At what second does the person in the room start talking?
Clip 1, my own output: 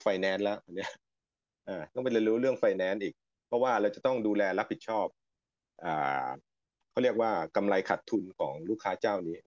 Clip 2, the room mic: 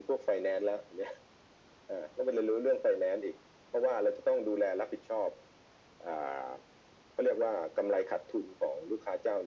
none

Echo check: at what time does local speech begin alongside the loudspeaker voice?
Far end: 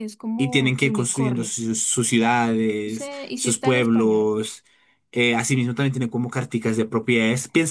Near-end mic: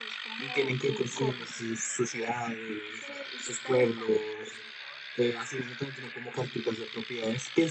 none

